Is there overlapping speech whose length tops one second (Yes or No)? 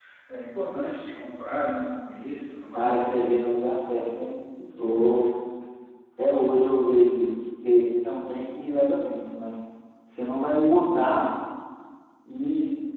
No